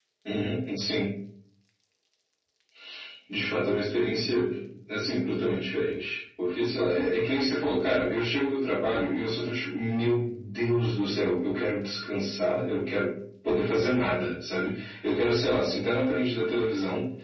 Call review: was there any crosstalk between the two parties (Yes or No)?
No